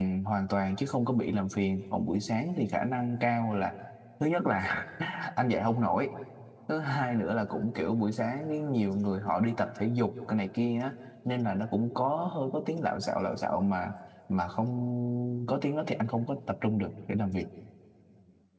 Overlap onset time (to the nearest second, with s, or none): none